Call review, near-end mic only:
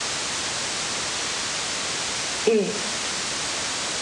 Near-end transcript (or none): ええ。